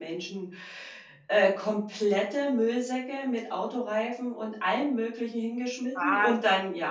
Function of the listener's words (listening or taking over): listening